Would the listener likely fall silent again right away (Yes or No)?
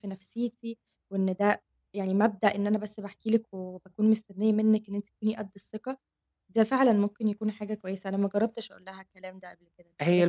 No